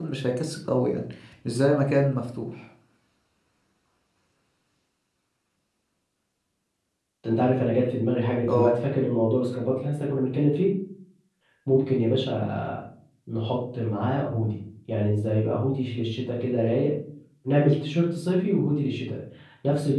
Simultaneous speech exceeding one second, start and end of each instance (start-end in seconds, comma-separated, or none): none